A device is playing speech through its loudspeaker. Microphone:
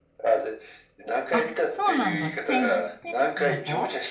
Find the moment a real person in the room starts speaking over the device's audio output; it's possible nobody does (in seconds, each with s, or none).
1.3 s